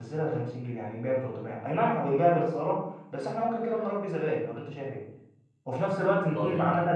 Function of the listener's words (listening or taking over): listening